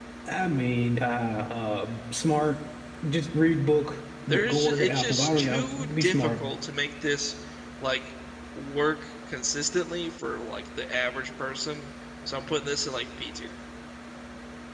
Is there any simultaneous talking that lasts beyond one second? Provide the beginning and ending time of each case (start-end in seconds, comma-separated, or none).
4.3-6.4